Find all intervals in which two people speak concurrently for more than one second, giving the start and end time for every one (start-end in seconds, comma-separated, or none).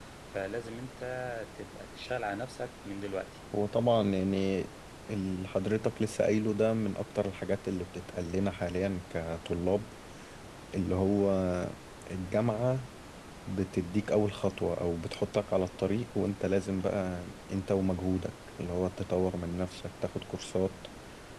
none